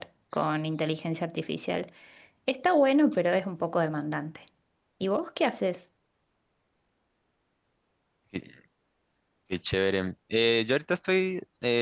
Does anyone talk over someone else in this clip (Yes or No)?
No